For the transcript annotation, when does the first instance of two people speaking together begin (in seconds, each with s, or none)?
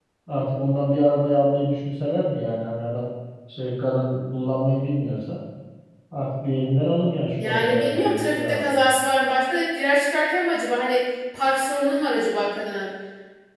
7.4 s